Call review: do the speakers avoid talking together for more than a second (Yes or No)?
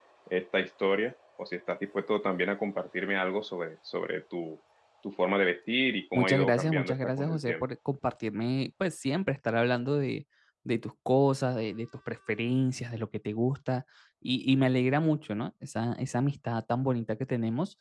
No